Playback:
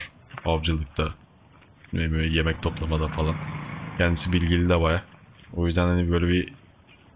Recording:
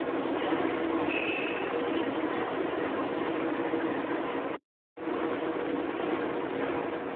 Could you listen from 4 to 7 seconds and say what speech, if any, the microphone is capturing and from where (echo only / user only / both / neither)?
neither